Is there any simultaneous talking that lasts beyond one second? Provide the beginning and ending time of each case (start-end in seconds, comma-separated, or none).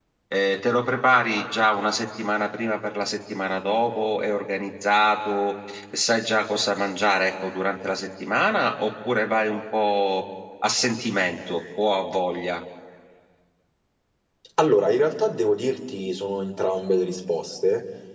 none